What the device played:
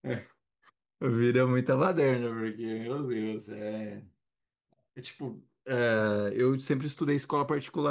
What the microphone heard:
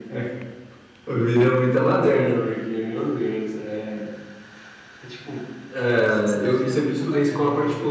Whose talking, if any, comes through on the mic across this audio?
both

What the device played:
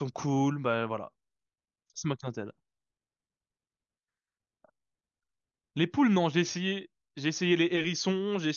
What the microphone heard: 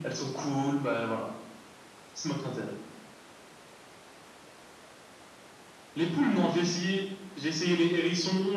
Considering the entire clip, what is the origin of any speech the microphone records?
echo only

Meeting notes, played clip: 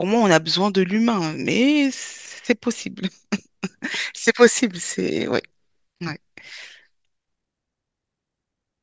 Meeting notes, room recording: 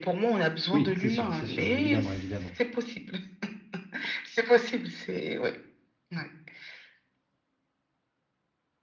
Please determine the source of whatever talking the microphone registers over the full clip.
both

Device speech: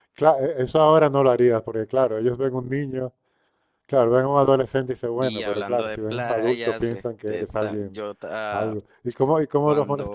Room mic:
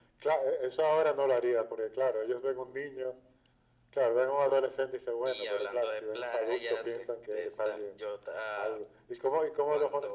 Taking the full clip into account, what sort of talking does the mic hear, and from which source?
echo only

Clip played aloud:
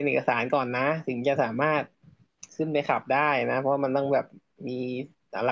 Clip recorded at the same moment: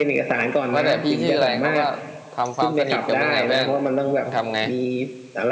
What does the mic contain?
both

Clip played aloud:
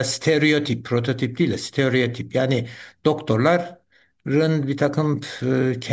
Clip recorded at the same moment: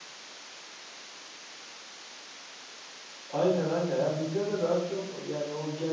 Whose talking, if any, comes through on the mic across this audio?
user only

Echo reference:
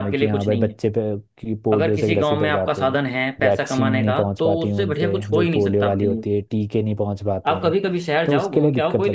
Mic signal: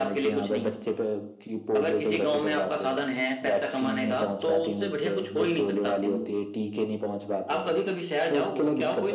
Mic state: echo only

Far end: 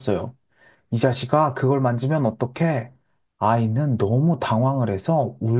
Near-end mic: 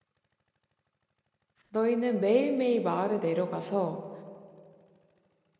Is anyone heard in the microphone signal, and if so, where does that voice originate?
user only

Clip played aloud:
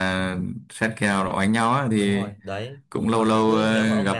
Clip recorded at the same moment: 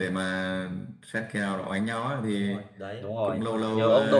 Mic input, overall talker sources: both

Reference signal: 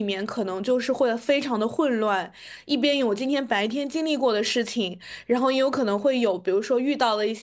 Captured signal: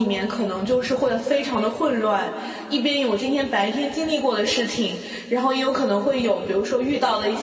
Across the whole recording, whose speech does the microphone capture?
echo only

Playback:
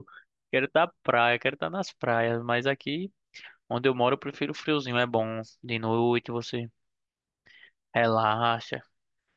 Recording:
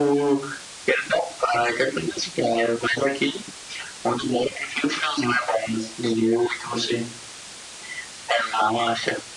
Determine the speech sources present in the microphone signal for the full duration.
echo only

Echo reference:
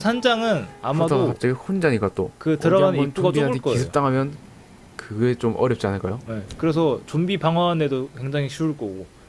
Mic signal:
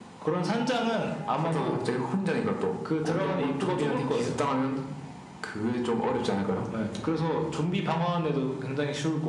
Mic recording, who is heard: echo only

